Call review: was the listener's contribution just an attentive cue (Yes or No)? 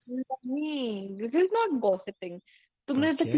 Yes